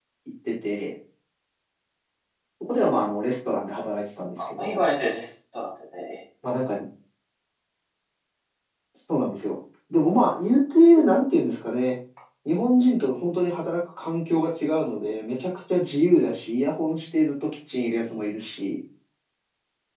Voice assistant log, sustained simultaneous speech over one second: none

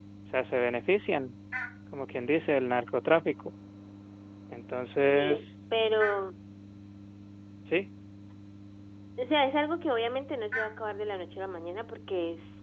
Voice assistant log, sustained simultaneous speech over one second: none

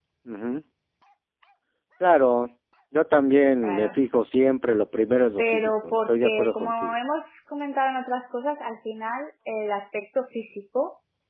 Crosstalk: present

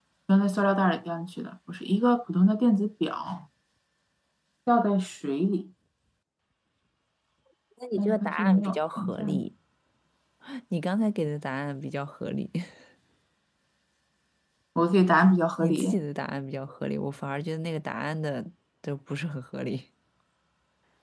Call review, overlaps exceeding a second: present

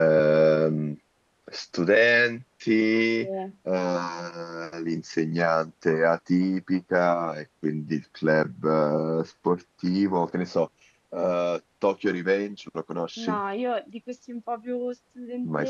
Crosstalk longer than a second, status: none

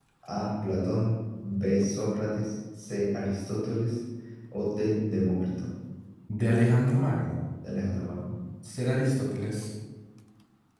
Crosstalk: none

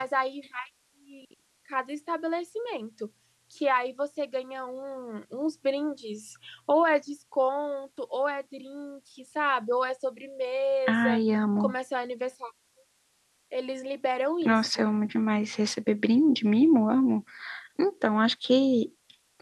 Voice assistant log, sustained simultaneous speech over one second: none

